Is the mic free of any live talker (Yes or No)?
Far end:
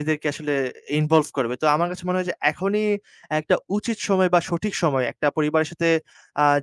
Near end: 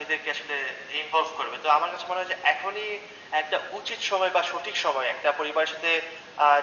Yes